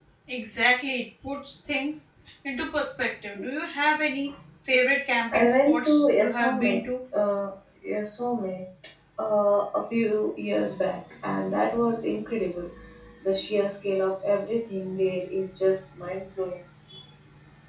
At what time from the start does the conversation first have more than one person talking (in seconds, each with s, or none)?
5.3 s